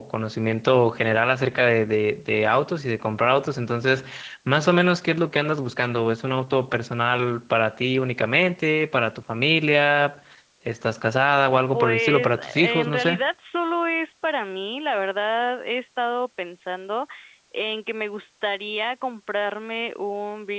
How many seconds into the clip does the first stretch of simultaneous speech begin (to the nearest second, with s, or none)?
12 s